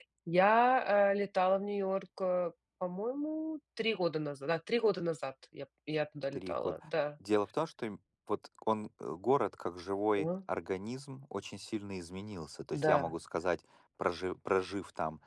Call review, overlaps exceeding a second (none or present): none